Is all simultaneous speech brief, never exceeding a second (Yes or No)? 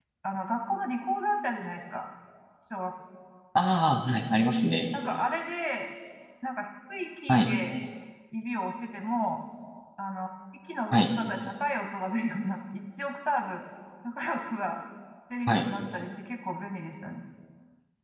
Yes